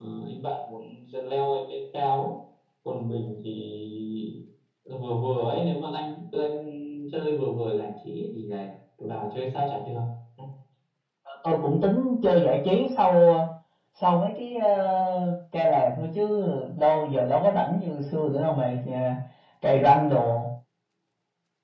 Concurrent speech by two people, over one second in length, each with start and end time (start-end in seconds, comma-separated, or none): none